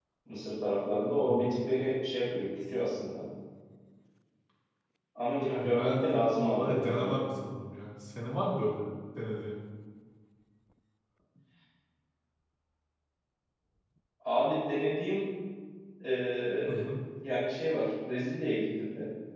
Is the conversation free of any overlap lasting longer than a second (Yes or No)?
No